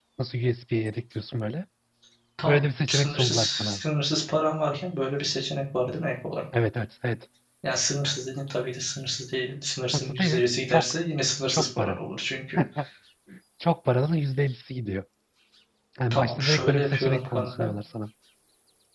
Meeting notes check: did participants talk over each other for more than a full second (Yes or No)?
Yes